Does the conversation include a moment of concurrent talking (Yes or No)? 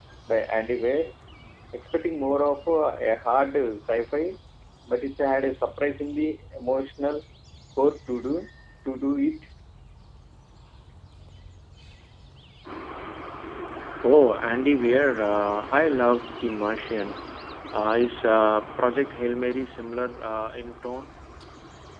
No